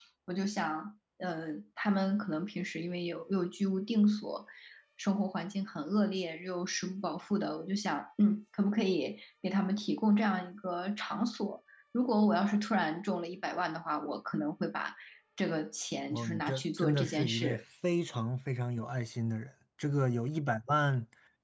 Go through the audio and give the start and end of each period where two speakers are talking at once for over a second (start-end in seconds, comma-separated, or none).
16.1-17.6